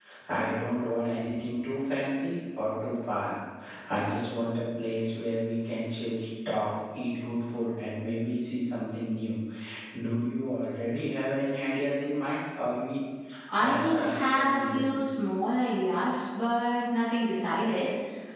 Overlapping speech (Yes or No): Yes